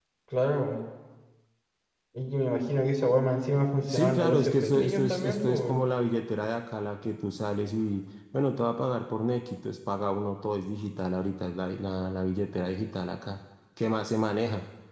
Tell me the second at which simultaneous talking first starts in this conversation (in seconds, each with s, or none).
3.9 s